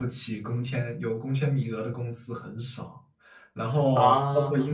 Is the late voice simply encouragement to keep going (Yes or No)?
Yes